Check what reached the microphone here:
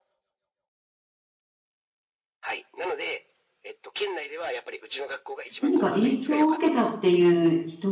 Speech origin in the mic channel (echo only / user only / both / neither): both